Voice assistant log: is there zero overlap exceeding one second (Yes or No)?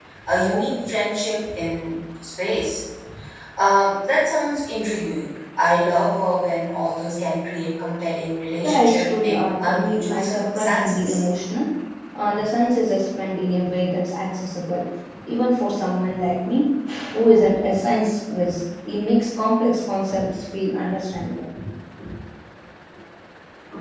No